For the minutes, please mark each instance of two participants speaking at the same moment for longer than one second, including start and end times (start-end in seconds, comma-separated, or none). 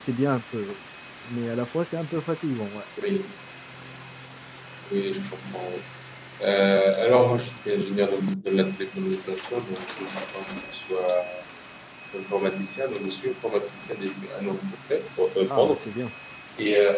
none